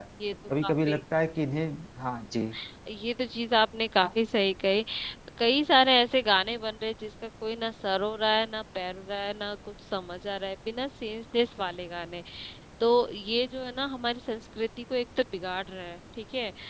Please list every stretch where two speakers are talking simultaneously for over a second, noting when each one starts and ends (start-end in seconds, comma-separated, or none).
none